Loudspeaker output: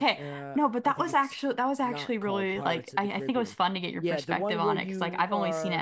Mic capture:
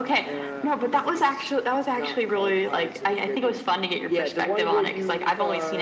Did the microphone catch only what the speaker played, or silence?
Yes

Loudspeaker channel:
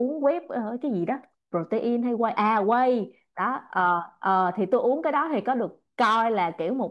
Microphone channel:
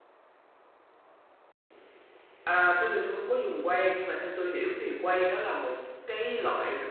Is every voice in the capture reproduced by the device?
No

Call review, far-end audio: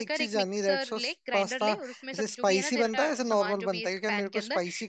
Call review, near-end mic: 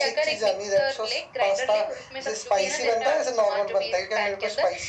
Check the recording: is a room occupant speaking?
No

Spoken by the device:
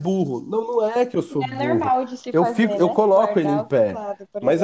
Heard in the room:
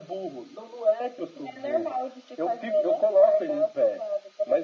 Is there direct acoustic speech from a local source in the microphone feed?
No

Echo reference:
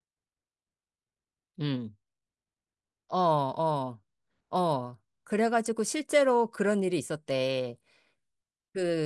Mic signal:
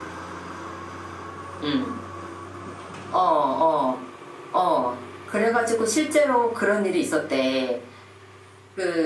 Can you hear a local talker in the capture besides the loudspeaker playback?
No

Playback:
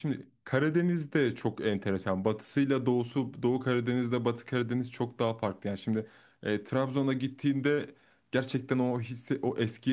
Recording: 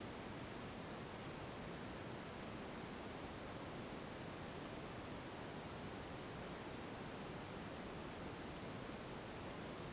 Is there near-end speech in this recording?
No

